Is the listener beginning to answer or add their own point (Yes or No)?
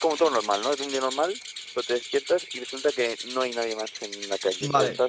Yes